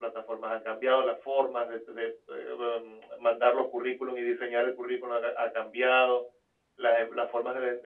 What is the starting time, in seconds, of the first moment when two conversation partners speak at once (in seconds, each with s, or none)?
none